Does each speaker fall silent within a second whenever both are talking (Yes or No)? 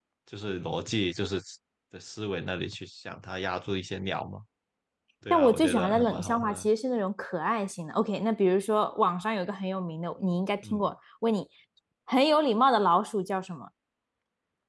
No